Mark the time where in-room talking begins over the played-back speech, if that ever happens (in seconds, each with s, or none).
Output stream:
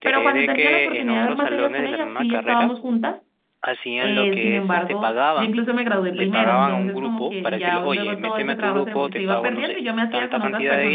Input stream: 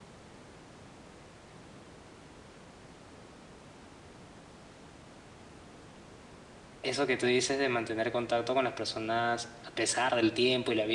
6.8 s